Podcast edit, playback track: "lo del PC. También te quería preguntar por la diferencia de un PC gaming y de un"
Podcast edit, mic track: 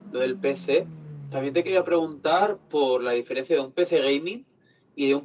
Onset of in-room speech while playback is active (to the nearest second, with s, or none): none